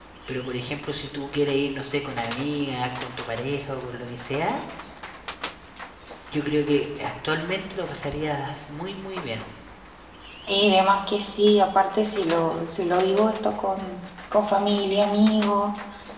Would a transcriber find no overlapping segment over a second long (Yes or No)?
Yes